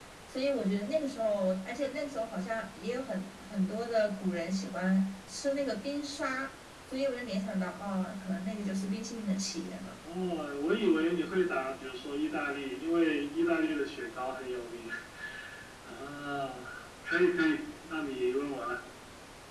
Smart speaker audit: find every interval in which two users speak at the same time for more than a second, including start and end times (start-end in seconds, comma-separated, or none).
none